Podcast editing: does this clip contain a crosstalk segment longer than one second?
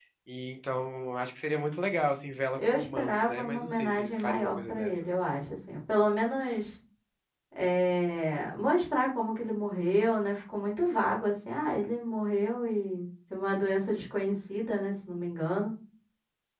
Yes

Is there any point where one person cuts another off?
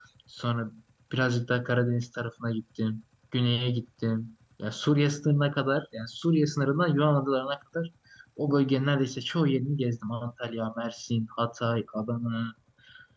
No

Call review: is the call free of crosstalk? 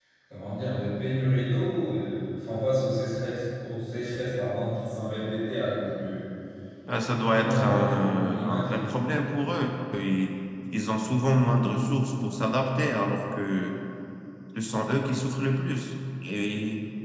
No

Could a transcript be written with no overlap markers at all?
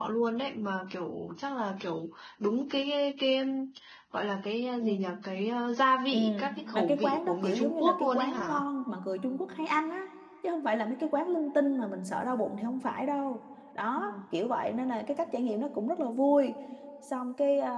No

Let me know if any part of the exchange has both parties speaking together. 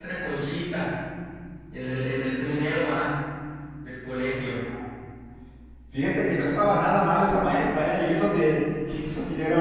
No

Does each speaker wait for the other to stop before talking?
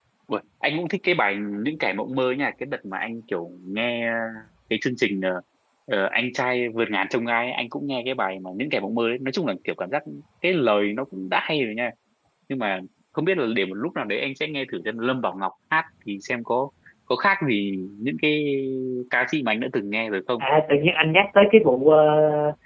Yes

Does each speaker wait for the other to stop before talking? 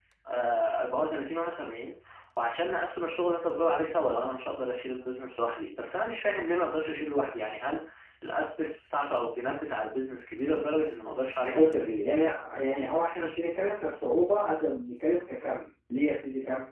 Yes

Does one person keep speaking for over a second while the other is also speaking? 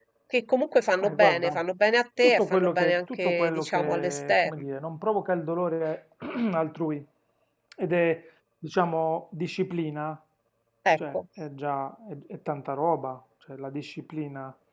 Yes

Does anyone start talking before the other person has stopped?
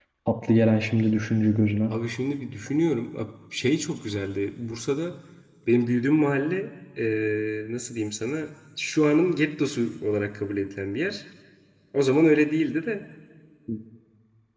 No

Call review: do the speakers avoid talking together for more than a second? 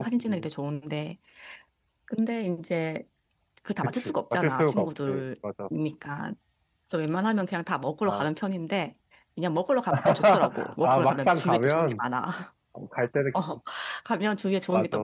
No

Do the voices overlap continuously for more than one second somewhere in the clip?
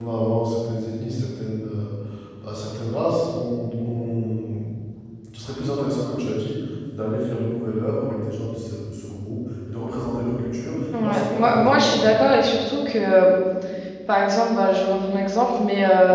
Yes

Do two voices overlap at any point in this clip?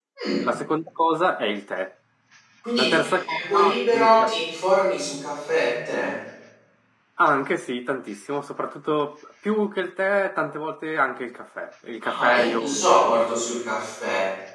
Yes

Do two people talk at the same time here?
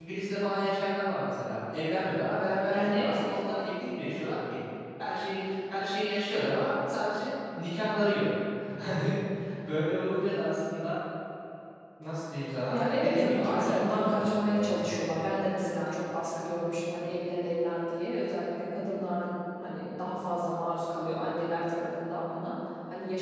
Yes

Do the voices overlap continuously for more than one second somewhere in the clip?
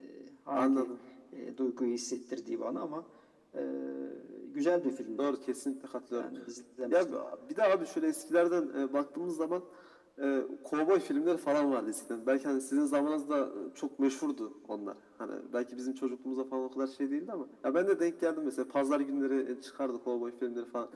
No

